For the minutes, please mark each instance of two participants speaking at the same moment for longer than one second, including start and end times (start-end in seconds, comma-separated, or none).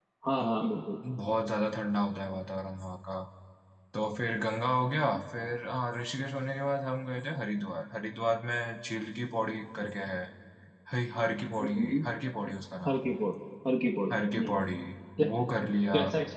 none